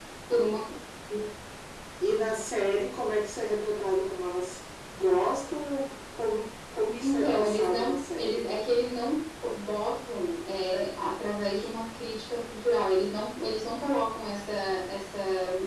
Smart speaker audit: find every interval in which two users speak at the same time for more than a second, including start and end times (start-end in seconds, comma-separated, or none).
7.0-8.4